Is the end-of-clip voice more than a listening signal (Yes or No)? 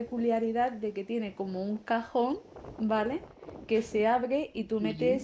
No